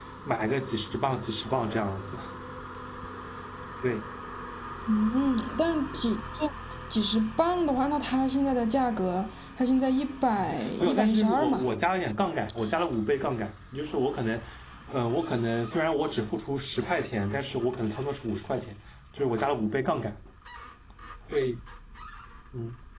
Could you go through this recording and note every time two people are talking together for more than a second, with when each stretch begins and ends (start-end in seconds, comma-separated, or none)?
10.4-11.7